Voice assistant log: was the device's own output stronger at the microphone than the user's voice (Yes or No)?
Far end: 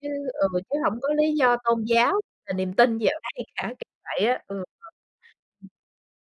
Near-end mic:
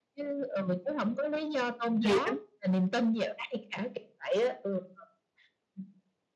No